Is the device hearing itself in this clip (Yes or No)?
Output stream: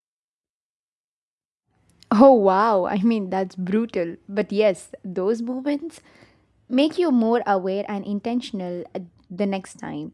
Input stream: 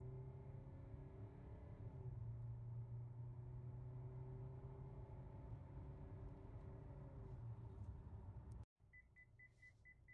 No